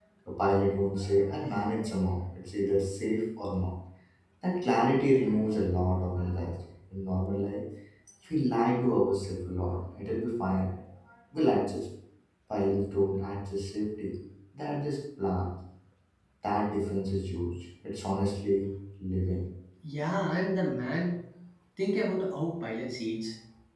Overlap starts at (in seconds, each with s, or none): none